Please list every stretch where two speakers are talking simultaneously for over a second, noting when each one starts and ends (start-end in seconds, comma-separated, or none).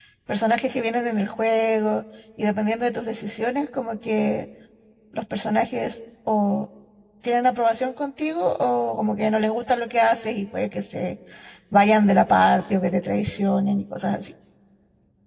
none